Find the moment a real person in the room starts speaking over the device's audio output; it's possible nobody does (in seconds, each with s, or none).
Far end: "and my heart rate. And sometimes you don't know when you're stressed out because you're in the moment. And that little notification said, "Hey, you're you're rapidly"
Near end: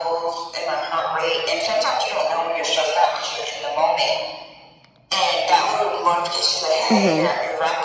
6.9 s